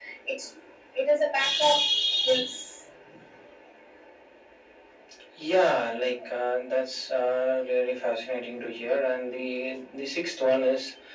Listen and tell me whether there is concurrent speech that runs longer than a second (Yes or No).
No